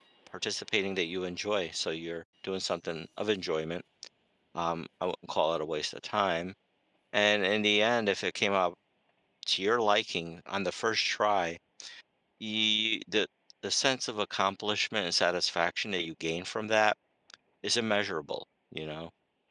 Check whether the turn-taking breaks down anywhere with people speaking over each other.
No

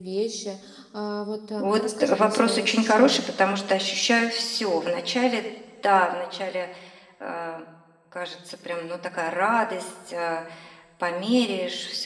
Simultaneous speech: Yes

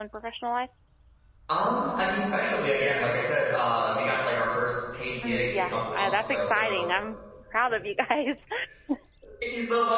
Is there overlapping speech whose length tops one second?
Yes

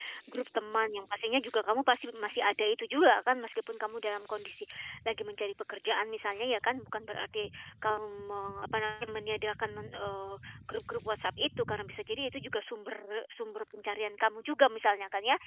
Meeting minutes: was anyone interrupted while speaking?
No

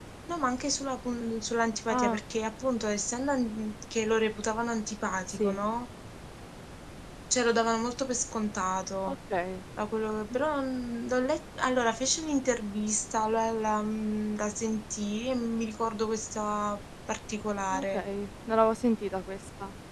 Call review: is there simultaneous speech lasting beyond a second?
No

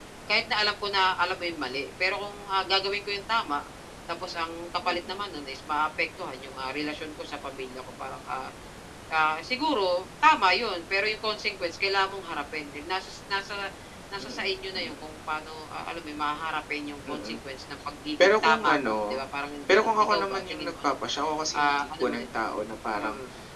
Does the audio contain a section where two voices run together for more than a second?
Yes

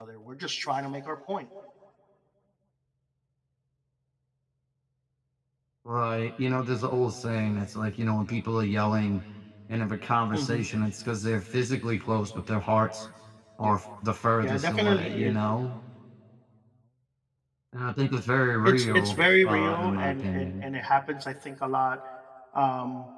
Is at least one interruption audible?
Yes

